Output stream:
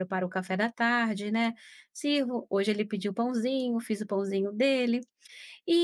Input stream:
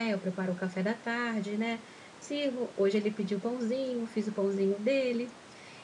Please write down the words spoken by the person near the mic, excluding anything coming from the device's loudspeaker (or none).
none